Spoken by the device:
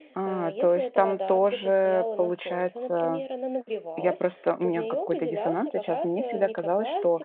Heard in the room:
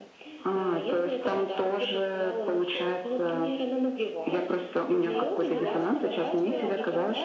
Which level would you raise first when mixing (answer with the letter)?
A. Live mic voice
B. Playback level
A